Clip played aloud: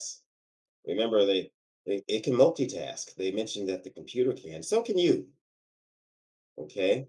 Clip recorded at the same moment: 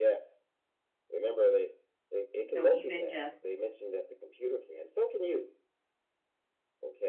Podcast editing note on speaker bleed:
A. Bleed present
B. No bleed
A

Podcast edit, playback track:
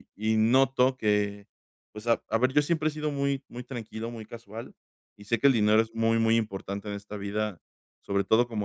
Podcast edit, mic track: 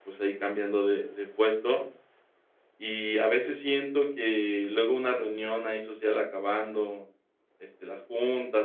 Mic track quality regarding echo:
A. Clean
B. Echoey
A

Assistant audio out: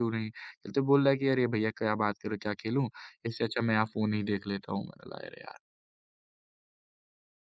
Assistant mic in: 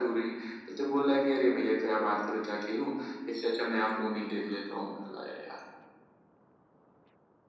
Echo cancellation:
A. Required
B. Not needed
A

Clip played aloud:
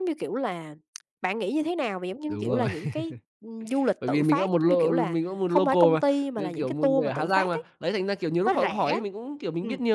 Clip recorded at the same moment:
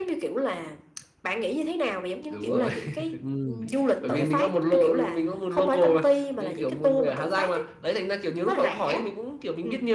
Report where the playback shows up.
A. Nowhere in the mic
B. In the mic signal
B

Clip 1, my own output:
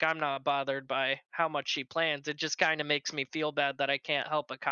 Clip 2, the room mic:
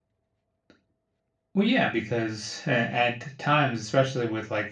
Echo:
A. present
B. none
B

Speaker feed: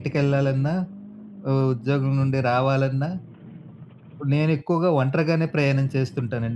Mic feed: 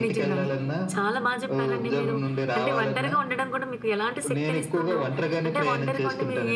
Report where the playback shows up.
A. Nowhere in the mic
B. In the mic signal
B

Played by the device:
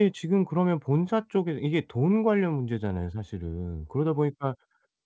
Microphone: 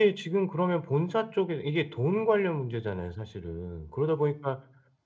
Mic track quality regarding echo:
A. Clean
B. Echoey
B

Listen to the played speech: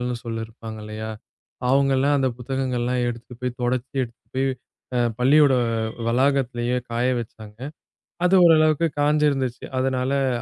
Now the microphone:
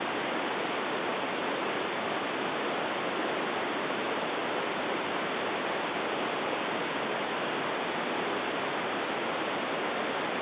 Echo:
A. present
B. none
B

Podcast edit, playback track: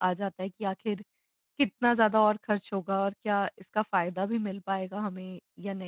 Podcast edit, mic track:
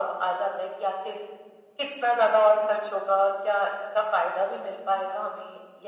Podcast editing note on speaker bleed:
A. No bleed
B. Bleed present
B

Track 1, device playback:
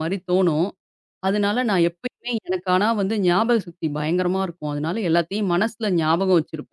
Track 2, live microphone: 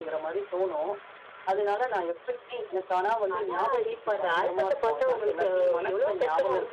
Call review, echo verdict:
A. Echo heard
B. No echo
A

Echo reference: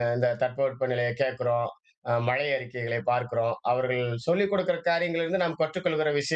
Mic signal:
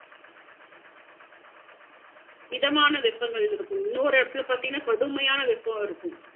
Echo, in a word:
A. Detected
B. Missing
B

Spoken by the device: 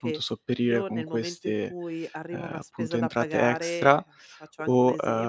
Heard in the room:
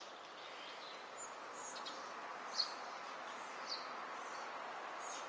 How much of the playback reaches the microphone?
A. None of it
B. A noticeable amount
A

